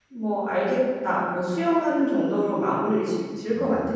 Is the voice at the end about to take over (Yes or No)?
Yes